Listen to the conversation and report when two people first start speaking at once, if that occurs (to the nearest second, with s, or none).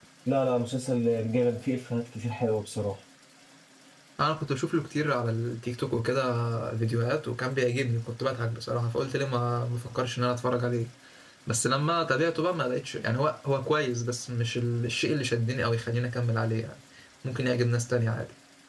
none